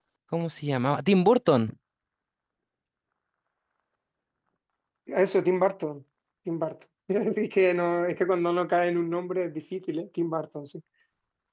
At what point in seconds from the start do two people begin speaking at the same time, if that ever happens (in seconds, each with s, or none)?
none